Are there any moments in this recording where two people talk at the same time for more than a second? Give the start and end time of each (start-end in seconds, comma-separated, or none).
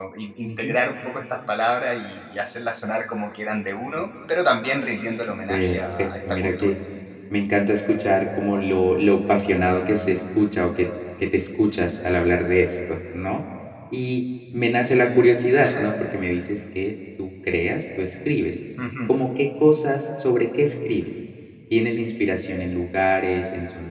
5.5-6.7